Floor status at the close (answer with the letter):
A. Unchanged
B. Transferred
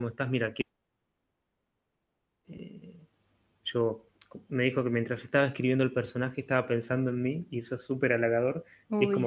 A